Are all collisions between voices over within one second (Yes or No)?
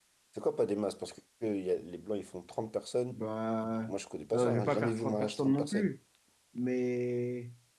No